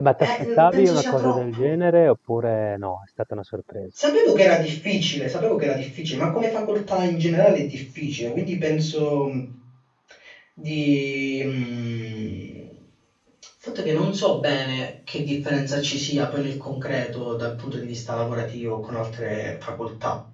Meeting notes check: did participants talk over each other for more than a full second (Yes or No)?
Yes